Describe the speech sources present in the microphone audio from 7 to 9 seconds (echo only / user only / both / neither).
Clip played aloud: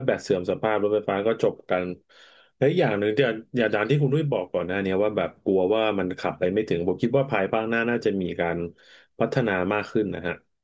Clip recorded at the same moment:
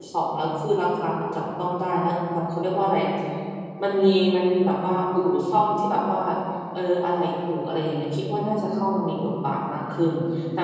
user only